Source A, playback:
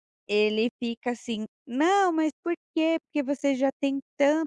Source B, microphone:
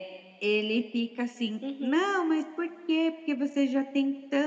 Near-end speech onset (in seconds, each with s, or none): 1.6 s